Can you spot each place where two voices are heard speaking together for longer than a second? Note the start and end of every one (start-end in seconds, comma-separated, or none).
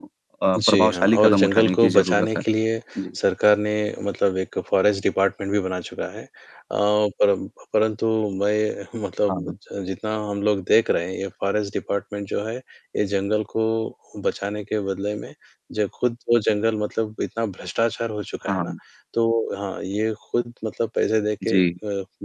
0.6-2.4